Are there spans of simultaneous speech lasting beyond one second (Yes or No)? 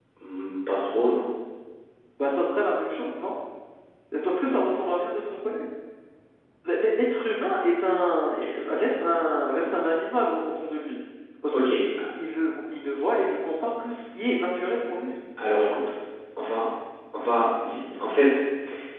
No